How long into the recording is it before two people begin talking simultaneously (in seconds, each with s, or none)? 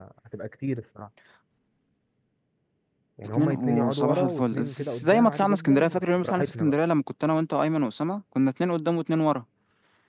3.4 s